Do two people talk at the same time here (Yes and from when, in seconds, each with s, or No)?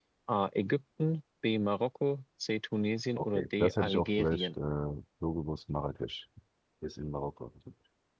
Yes, from 3.2 s